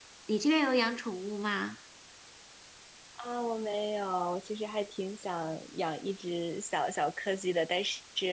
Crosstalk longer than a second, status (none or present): none